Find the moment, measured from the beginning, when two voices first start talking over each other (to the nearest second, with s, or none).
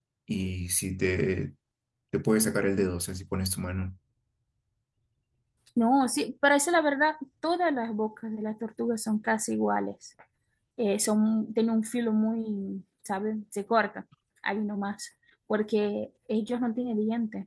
none